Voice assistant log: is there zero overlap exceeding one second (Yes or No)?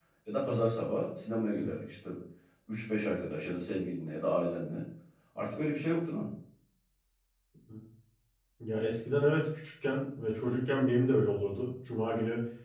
Yes